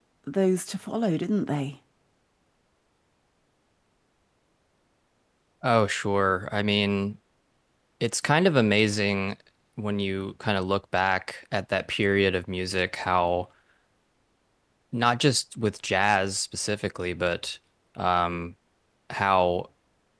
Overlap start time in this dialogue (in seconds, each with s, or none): none